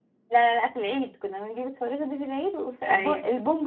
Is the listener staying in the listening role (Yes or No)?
Yes